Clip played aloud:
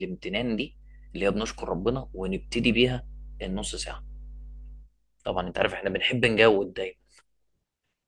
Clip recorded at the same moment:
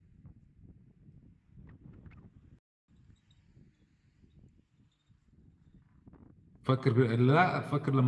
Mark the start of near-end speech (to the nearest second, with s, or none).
7 s